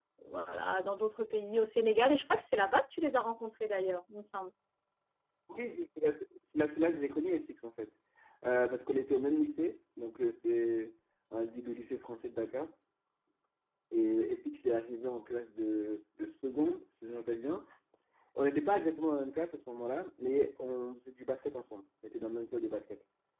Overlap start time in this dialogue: none

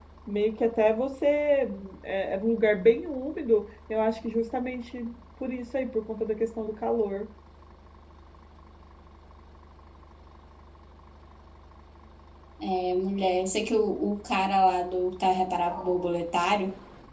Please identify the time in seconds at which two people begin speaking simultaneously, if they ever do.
none

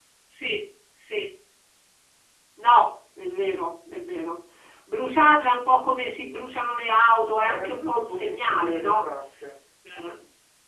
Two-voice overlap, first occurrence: 7.4 s

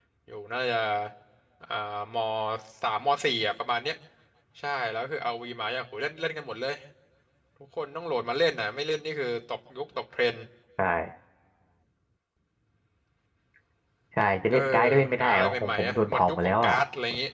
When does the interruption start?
14.5 s

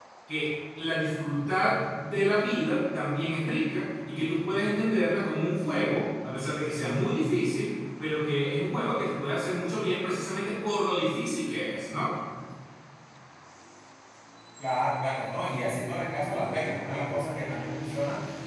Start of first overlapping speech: none

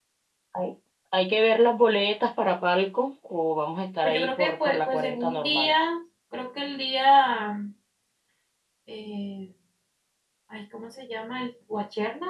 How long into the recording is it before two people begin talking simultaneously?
4.0 s

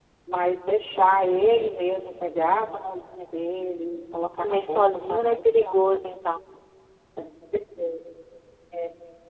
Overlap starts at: 4.4 s

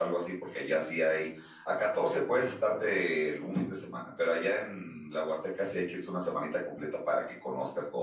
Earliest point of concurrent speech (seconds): none

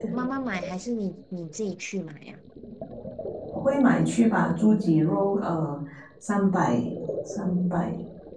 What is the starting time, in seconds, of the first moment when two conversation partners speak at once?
none

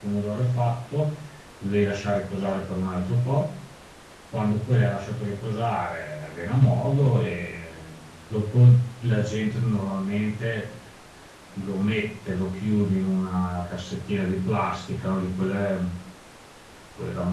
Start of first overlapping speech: none

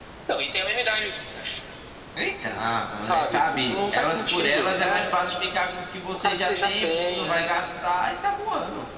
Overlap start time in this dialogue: 3.0 s

